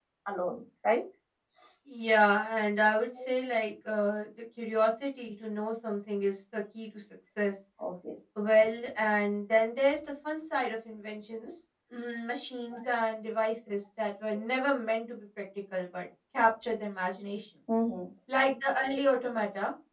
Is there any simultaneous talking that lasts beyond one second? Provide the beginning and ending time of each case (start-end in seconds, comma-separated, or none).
none